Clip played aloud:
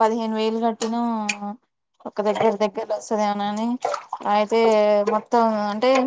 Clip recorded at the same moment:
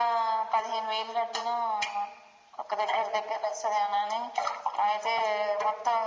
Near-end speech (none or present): none